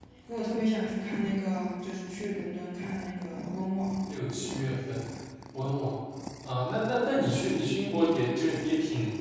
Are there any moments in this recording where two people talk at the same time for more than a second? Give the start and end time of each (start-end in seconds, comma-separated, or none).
none